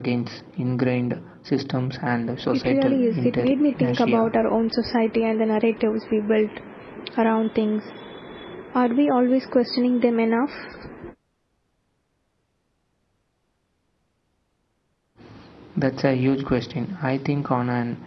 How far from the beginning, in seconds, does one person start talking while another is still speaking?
3 s

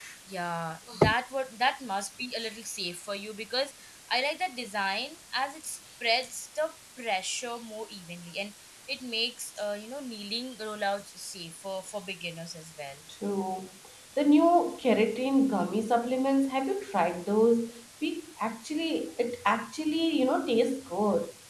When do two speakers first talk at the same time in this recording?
none

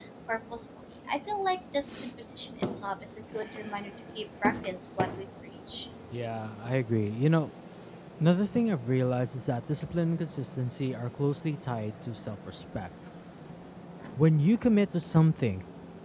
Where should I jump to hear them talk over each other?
none

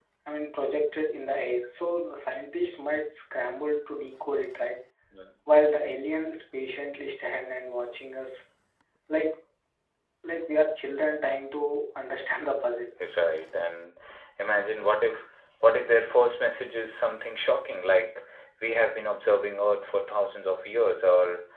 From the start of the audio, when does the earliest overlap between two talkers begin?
none

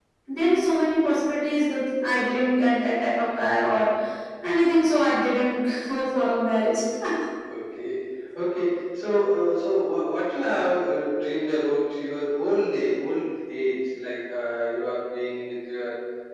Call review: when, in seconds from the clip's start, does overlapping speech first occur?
none

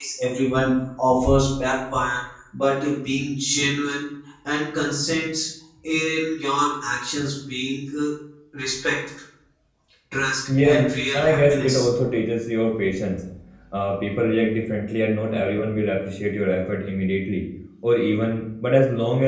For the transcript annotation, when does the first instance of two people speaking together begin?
11 s

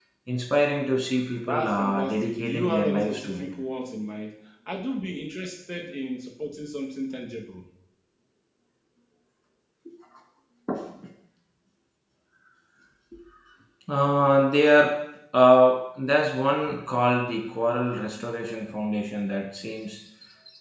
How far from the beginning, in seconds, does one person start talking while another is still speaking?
1 s

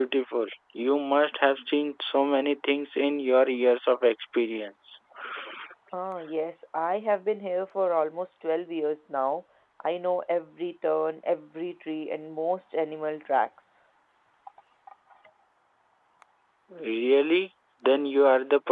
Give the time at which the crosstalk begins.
none

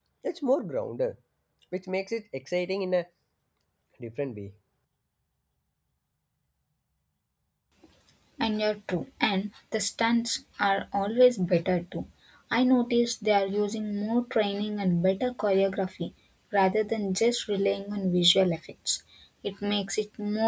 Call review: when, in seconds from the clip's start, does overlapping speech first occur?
none

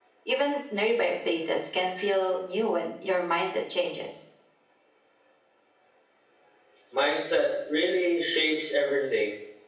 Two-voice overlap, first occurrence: none

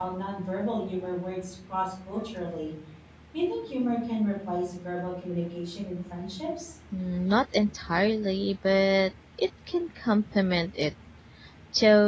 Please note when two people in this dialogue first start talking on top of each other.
none

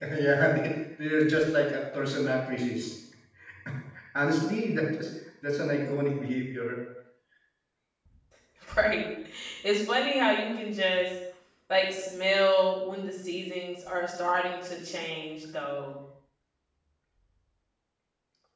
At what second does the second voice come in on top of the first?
none

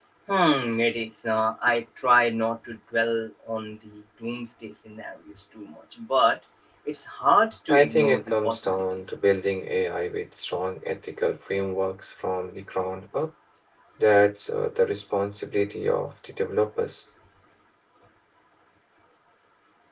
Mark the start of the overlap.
8 s

